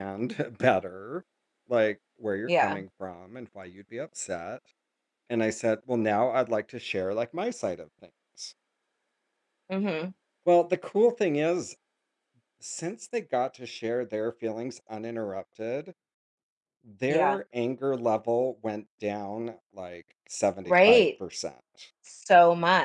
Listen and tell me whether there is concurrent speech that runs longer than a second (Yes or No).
No